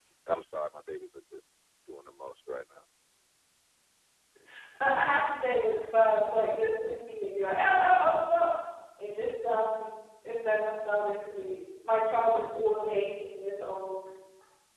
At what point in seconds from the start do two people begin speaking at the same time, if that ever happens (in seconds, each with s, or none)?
none